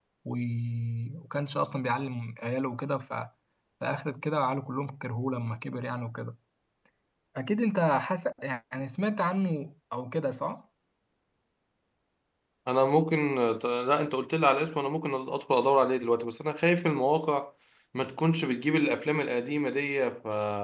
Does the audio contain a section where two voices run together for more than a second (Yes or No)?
No